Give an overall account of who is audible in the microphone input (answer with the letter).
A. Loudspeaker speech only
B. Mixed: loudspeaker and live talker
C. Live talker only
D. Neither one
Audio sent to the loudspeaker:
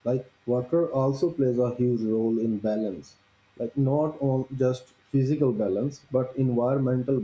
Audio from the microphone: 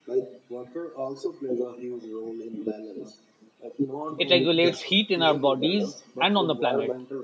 B